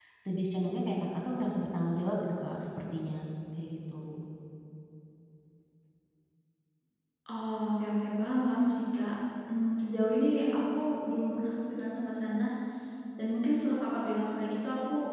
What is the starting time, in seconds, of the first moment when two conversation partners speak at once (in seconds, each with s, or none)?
none